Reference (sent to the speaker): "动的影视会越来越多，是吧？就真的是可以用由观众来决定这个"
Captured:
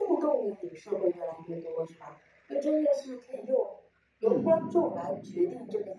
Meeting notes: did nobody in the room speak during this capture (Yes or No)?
No